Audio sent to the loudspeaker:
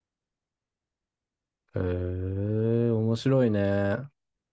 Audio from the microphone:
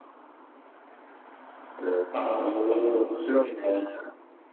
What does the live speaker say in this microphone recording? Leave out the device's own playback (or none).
まあまあ、普通はそう。